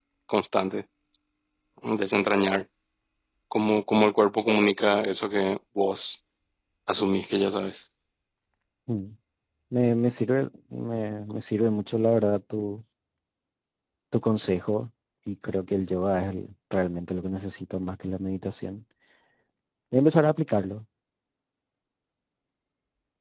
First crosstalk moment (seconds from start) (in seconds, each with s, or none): none